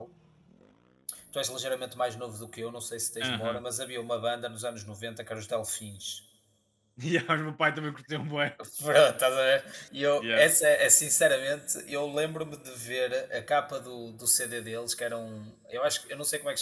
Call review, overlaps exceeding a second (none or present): none